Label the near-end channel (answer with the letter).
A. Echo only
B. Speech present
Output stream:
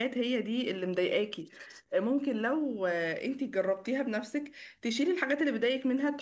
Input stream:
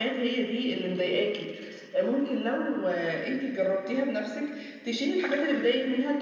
A